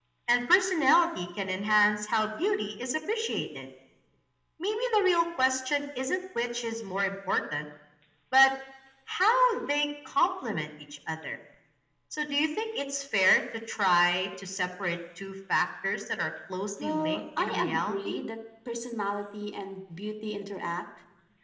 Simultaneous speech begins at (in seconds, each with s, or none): 16.8 s